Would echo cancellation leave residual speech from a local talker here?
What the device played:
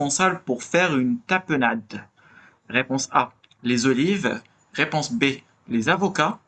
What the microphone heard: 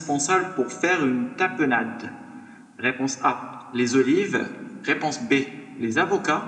No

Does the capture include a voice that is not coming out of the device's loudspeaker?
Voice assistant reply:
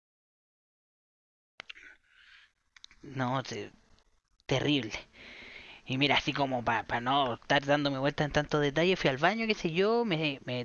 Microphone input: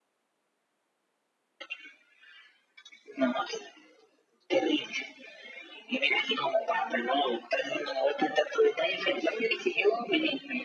No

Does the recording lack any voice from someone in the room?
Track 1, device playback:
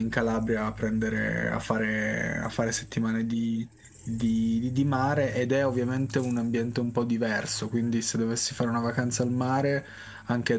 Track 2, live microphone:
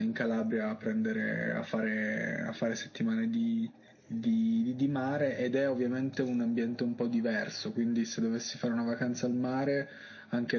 Yes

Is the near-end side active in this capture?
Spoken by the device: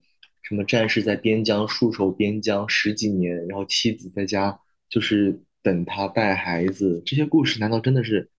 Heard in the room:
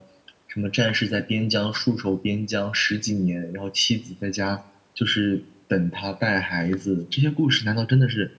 No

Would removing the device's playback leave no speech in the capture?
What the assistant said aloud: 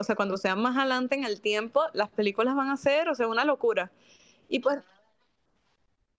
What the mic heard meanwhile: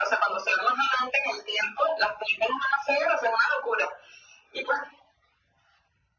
Yes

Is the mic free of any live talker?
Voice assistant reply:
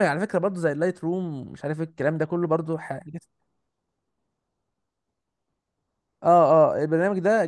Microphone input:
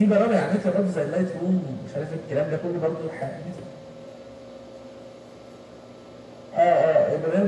Yes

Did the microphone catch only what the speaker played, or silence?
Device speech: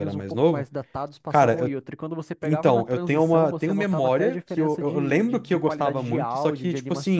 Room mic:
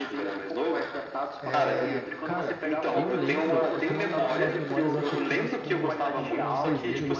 No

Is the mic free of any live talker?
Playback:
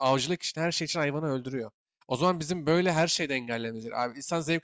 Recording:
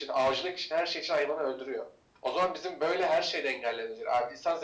Yes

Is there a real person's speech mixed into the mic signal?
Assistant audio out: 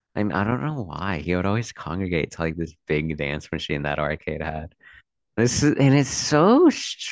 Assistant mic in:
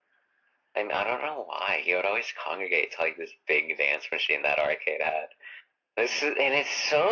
No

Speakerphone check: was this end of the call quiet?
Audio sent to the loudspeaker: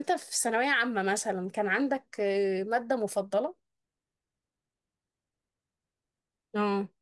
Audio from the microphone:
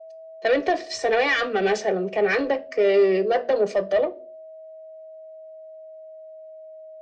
Yes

